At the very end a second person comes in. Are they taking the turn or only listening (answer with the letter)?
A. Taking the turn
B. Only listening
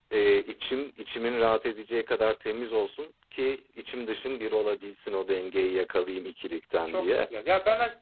A